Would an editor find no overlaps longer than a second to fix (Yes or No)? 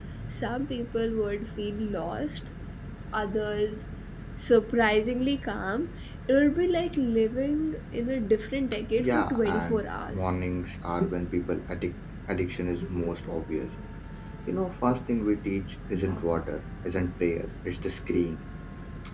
No